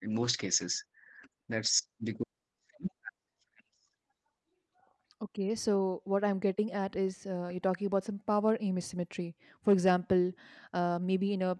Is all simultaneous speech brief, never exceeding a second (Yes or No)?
Yes